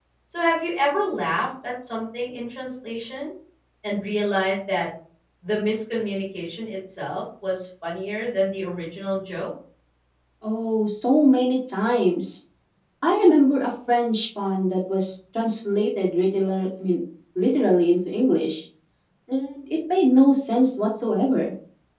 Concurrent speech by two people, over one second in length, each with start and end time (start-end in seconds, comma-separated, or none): none